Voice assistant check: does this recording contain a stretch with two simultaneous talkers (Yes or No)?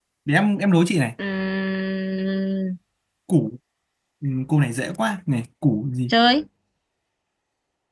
No